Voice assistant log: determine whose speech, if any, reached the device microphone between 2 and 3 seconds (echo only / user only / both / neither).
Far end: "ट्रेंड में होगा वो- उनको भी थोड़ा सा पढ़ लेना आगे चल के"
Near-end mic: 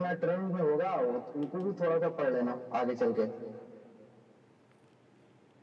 echo only